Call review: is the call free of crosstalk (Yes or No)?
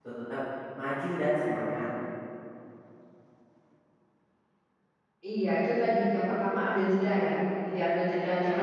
Yes